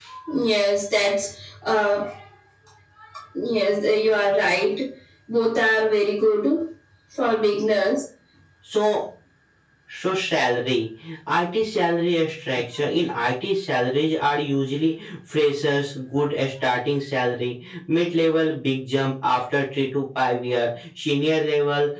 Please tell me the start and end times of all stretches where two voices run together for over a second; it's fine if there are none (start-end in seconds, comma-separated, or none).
none